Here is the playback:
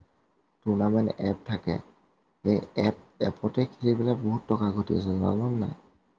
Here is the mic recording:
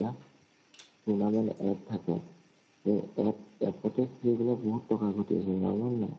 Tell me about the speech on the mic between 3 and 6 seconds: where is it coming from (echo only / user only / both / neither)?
echo only